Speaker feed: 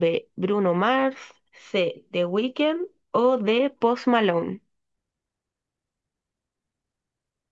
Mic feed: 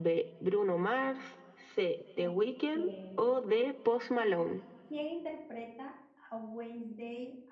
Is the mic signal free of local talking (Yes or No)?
No